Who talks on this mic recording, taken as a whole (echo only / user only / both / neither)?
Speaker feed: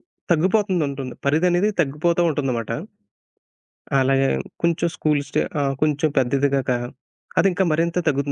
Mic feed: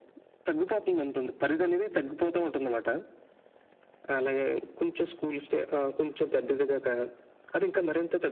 echo only